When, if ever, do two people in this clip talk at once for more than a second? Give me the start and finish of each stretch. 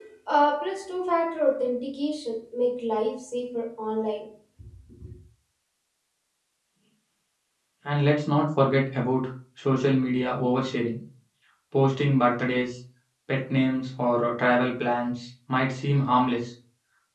none

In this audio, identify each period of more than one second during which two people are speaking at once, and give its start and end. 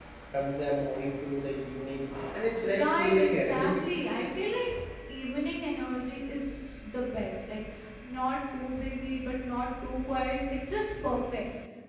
2.6-3.9

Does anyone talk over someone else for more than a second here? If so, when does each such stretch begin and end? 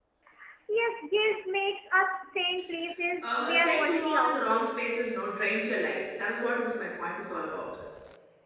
3.2-4.9

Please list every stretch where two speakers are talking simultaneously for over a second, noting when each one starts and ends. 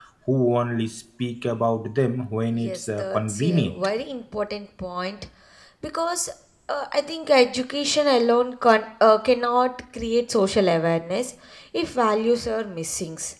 2.5-3.8

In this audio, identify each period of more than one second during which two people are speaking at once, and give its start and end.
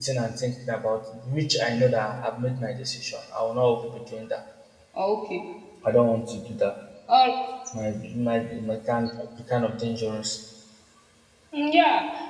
none

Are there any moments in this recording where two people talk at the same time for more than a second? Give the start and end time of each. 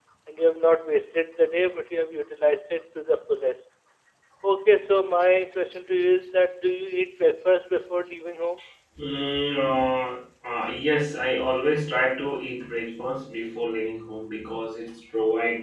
none

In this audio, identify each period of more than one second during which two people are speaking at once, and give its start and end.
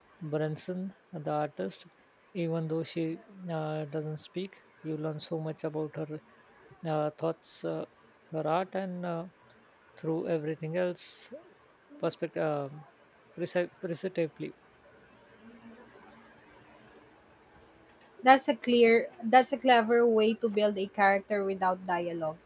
none

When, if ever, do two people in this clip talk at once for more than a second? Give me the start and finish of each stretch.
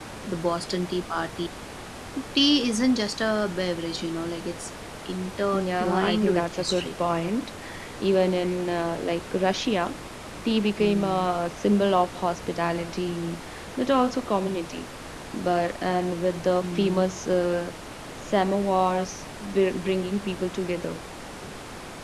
5.5-6.9

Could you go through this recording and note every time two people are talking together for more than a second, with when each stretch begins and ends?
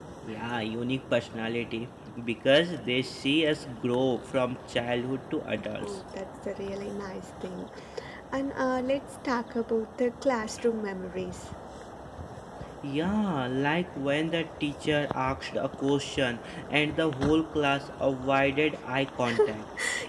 none

